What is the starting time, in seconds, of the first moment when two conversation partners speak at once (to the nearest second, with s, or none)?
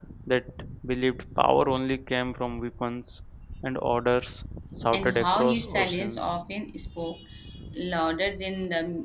5 s